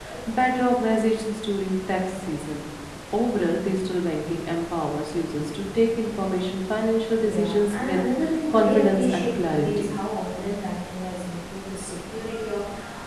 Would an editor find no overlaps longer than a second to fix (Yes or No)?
No